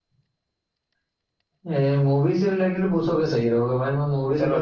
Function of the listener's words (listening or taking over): taking over